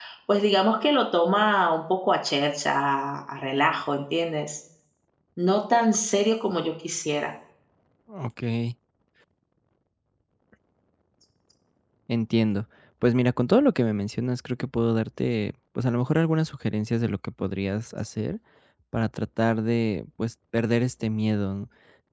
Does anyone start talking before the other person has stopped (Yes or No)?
No